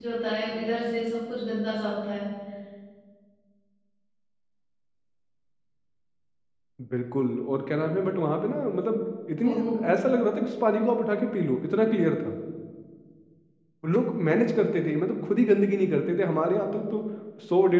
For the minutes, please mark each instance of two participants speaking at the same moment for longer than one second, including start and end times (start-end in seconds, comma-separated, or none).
none